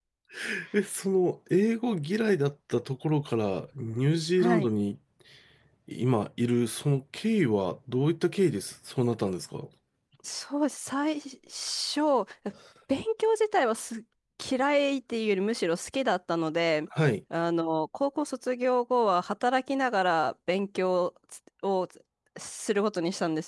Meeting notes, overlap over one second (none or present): none